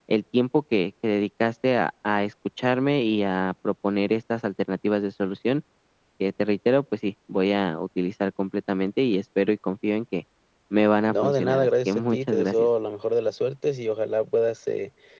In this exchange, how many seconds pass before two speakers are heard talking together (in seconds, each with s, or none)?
11.1 s